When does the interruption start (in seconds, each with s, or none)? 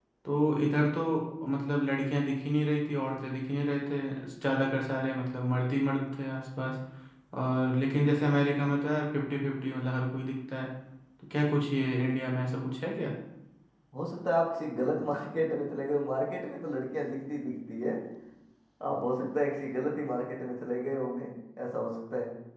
none